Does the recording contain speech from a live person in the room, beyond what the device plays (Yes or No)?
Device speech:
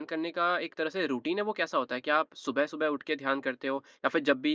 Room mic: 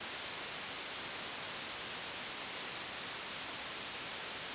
No